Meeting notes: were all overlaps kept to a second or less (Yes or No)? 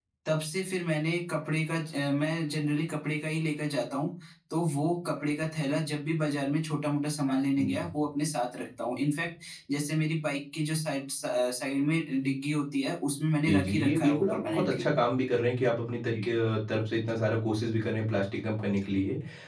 No